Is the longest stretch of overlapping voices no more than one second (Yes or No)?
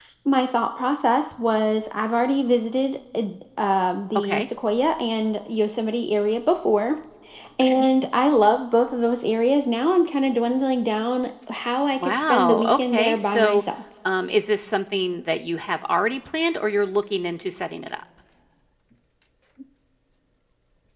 No